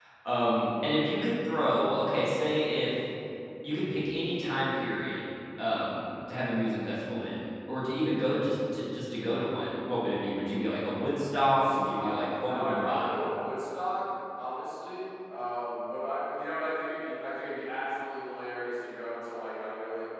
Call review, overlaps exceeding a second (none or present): present